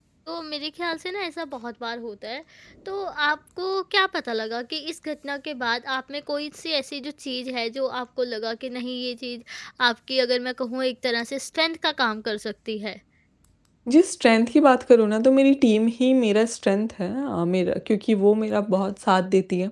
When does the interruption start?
none

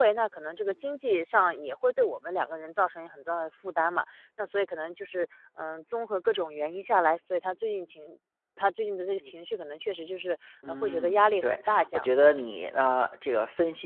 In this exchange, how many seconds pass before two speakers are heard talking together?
11 s

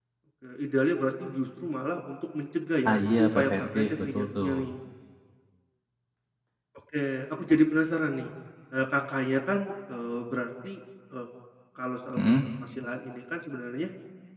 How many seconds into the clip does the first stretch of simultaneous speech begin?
3 s

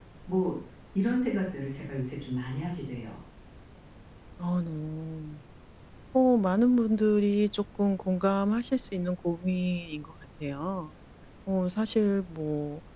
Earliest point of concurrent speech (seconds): none

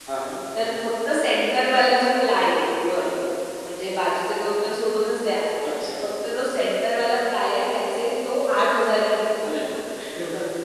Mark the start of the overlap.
none

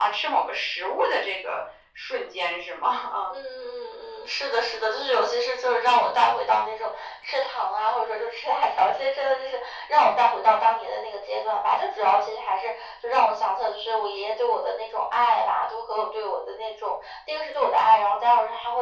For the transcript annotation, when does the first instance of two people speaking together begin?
none

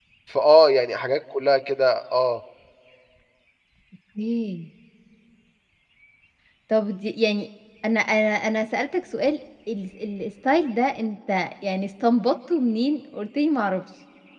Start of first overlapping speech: none

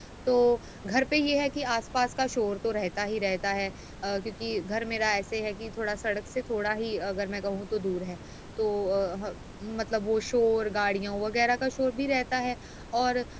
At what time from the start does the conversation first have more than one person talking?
none

